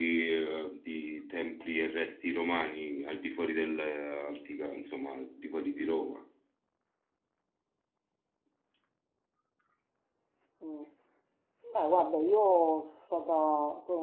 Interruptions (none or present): none